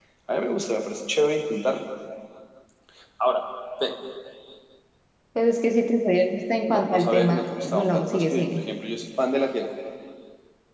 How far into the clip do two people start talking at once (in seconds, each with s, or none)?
6.7 s